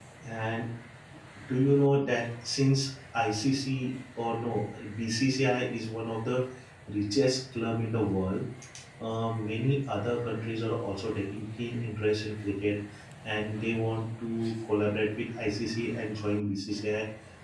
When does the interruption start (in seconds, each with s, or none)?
none